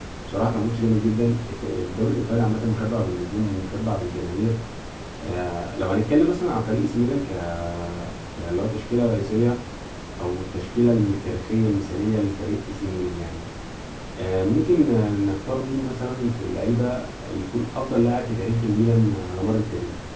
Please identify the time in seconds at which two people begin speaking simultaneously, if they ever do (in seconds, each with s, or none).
none